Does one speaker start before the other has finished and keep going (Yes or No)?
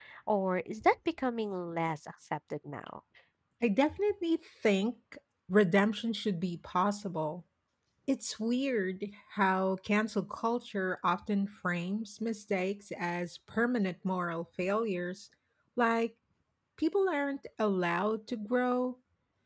No